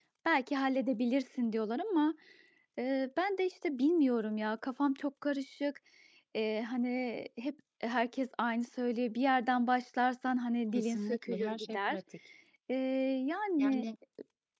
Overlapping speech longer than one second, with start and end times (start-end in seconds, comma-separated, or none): 10.7-12.0